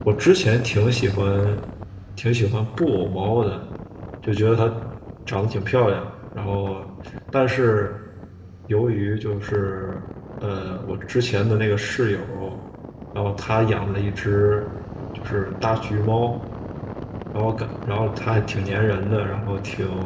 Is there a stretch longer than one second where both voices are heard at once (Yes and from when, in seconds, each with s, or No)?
No